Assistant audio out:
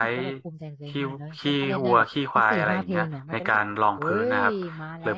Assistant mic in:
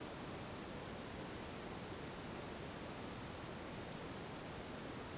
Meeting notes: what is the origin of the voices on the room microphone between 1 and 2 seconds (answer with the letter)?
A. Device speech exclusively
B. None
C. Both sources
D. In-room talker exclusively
B